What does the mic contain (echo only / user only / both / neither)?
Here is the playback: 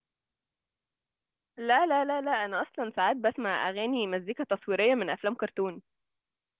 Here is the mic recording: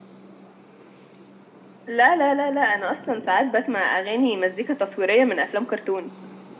echo only